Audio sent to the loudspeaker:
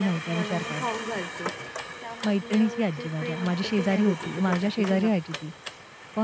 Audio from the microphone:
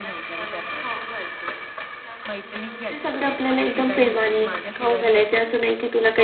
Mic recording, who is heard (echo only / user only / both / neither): both